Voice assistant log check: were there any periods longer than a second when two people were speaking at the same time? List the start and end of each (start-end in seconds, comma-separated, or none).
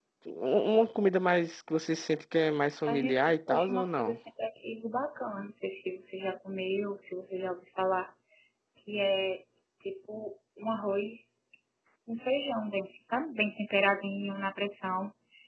2.9-4.2